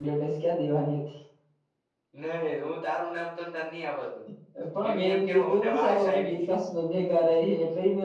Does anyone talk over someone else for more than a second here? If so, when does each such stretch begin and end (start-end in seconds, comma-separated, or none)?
4.8-6.5